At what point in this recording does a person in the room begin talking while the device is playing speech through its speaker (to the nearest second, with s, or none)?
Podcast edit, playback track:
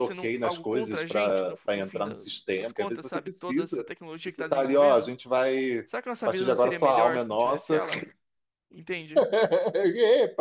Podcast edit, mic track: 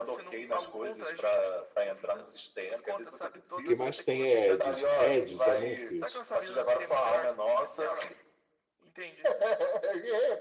4 s